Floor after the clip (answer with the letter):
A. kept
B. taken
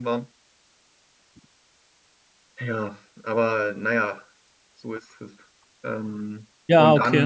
A